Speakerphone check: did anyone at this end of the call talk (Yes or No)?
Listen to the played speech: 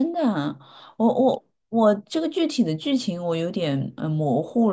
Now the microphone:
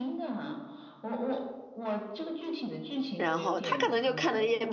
Yes